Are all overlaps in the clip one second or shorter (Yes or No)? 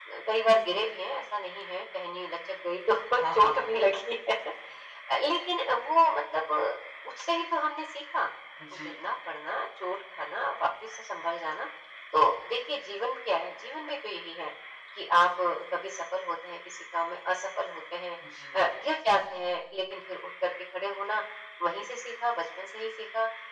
Yes